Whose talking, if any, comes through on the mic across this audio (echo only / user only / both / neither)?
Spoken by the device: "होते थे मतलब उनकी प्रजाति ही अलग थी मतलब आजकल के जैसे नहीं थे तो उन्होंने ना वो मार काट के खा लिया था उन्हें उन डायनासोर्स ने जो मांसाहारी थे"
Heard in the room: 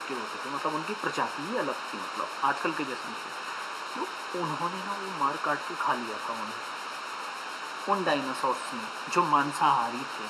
echo only